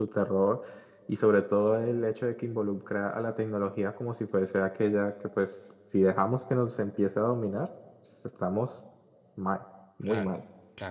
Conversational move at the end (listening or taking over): taking over